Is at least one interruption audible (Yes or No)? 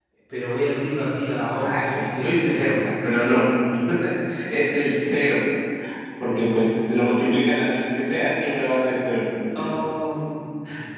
Yes